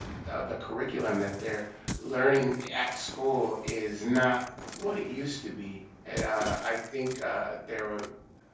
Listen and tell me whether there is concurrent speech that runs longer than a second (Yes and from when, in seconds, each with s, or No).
No